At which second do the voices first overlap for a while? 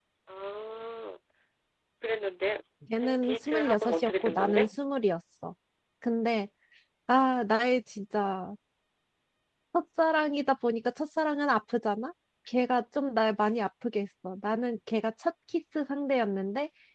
3.0 s

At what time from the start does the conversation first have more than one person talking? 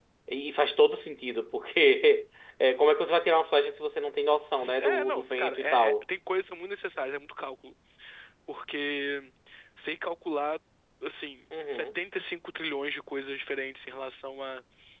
4.8 s

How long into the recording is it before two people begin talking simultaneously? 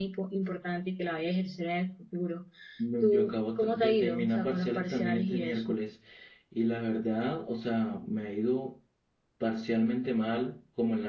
3.0 s

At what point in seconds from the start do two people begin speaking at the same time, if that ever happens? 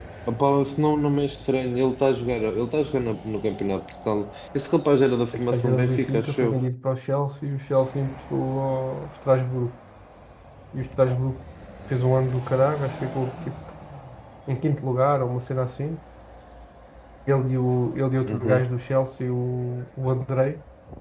5.3 s

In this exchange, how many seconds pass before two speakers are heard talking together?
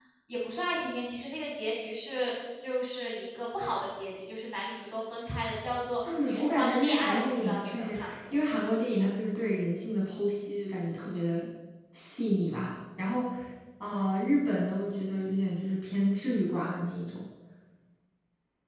6.0 s

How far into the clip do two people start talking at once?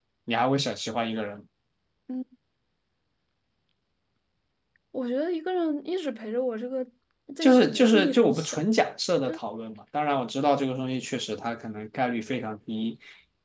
7.4 s

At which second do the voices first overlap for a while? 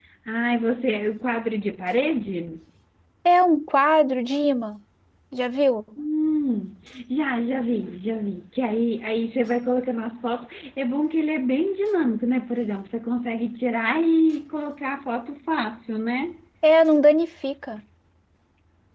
none

